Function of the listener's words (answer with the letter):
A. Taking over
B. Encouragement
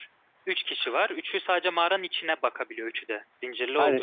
A